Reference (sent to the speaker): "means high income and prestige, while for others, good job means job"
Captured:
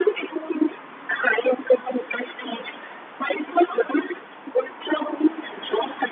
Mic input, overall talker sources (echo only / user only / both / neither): echo only